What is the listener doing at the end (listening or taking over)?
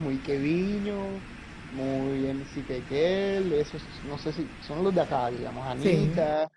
listening